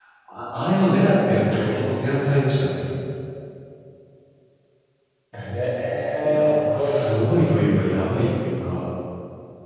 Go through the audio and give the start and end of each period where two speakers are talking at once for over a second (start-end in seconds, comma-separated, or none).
6.2-7.5